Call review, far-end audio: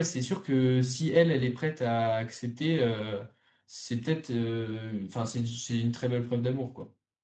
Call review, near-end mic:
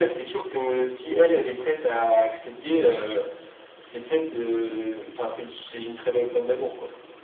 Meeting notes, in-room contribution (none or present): none